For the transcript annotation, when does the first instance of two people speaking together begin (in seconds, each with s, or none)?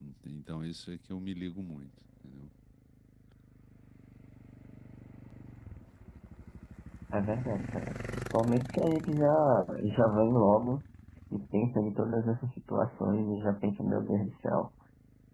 none